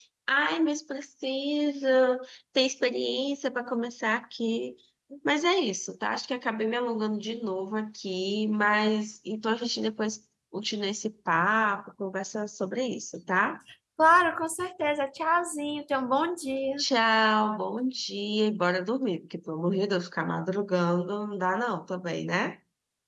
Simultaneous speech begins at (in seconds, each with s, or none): none